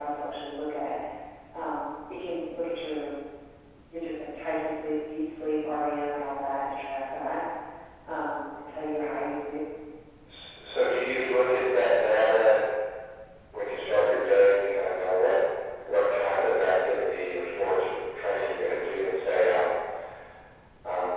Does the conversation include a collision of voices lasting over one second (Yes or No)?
No